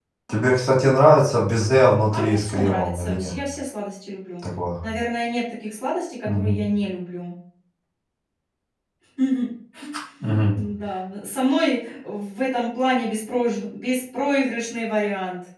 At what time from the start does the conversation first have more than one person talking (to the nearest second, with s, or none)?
2 s